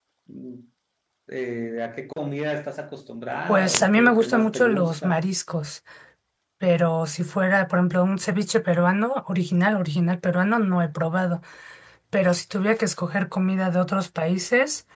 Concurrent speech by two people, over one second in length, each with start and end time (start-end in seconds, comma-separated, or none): 3.5-5.2